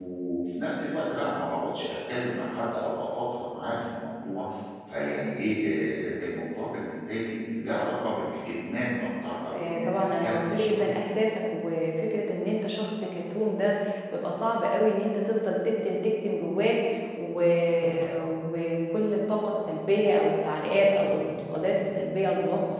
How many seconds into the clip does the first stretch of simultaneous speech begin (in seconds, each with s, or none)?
9.5 s